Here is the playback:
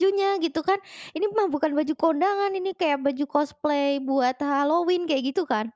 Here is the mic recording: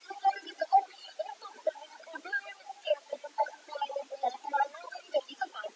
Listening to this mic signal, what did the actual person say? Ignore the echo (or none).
none